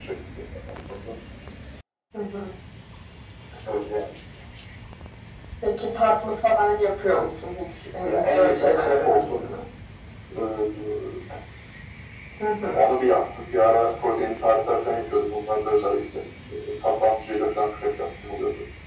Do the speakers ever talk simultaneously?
Yes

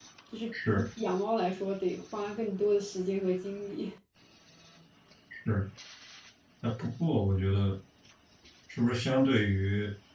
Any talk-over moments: No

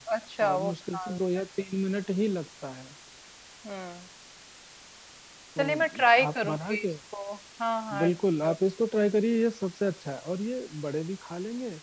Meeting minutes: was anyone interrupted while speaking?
Yes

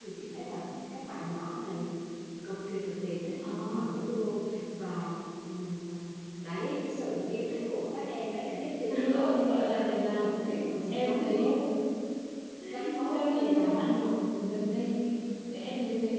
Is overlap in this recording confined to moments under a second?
No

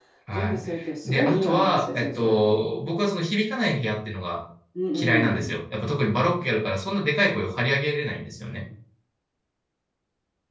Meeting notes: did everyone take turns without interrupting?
No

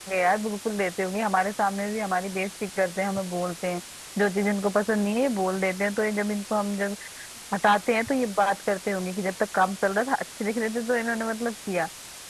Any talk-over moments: No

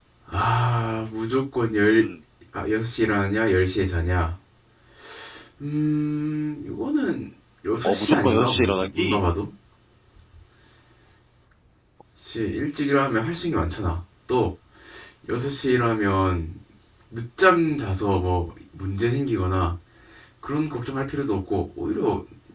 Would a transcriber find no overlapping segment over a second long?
No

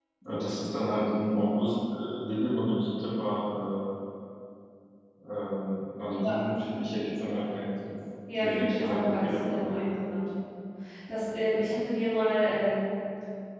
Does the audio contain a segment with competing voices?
Yes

